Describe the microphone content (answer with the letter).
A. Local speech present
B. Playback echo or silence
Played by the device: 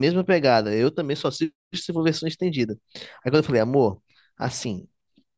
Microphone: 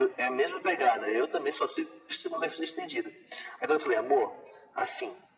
B